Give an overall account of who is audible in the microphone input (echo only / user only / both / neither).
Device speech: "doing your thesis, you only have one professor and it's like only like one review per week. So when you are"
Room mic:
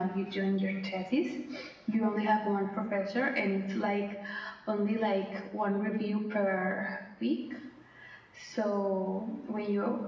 echo only